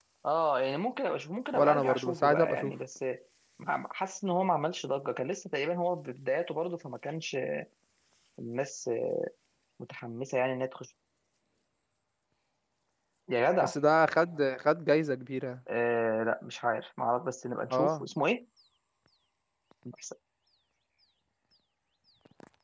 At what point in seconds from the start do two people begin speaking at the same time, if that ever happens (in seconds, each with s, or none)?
1.5 s